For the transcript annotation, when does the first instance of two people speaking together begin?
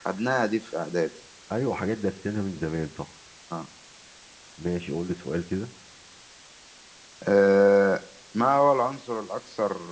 none

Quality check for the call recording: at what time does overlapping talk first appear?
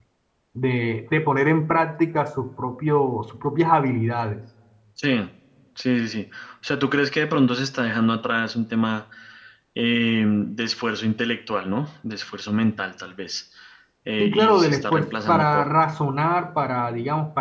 14.2 s

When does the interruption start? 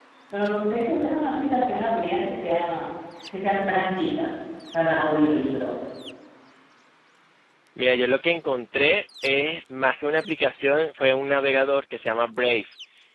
none

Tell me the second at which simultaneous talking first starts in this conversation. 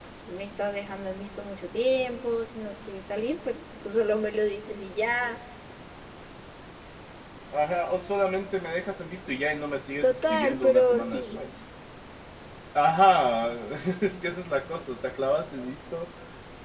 10.0 s

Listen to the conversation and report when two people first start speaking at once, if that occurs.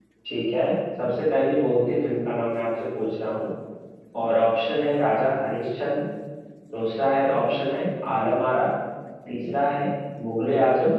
none

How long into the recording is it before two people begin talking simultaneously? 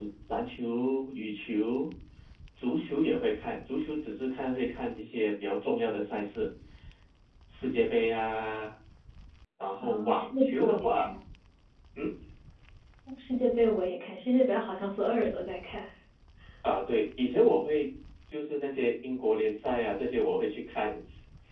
9.8 s

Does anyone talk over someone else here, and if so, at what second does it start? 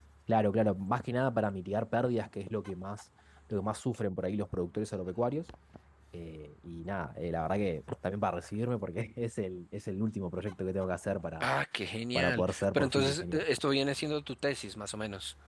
12.1 s

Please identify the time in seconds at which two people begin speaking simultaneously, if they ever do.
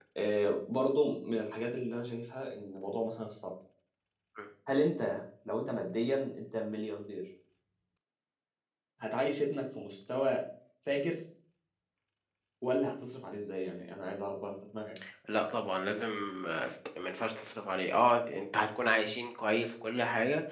none

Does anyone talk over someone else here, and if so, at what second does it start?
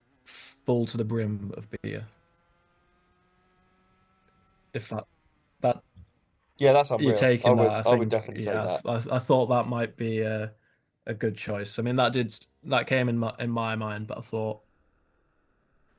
7.0 s

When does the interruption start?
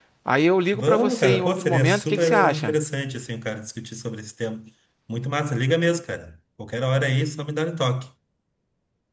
0.7 s

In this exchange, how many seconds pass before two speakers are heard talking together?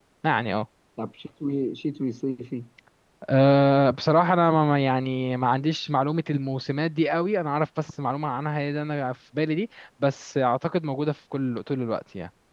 none

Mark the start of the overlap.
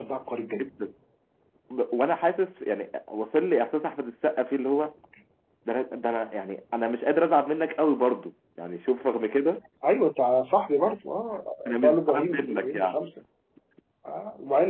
11.6 s

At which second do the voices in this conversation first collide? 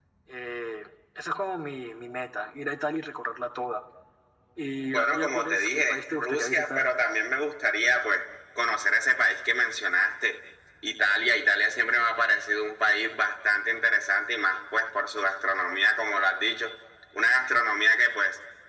4.9 s

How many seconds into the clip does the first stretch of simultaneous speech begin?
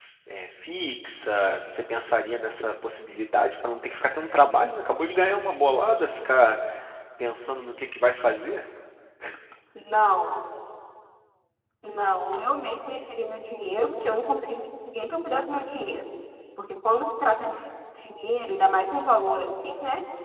none

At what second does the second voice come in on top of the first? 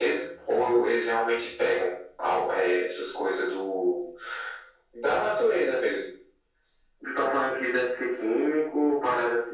none

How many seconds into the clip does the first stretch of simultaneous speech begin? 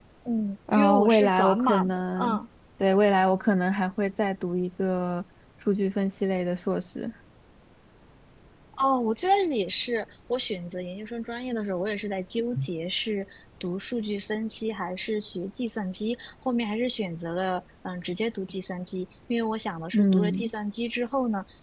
0.8 s

